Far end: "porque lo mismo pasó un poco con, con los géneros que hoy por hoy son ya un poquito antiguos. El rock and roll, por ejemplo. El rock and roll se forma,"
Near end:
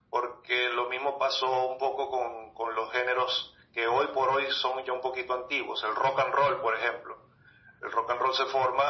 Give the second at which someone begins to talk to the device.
none

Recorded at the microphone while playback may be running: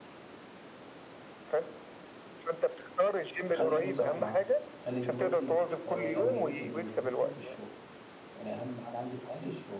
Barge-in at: 3.6 s

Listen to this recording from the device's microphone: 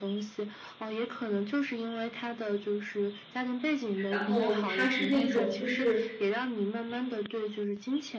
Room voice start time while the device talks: 4.1 s

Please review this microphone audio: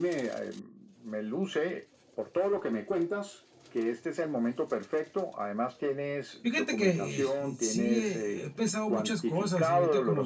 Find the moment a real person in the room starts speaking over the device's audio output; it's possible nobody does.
6.4 s

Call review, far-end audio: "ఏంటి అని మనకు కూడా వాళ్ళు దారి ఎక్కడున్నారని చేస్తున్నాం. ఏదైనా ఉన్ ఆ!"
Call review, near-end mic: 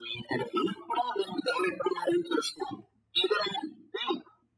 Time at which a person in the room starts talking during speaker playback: none

